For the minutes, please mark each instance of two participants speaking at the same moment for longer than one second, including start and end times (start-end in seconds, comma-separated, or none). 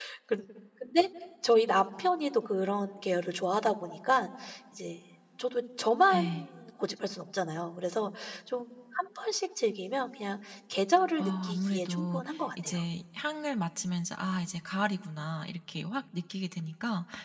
11.2-12.7